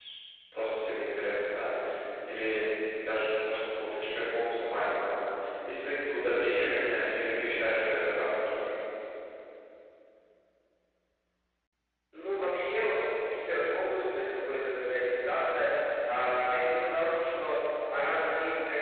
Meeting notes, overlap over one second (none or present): none